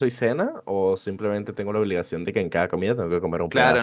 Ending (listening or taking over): taking over